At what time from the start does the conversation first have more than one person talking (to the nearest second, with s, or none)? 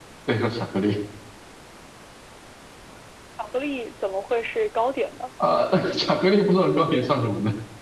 none